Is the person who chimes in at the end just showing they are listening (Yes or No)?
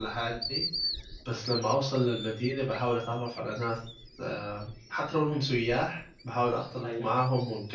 Yes